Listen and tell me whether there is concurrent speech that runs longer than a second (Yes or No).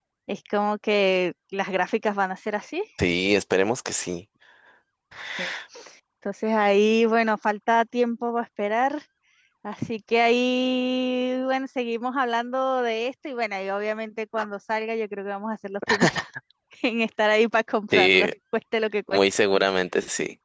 No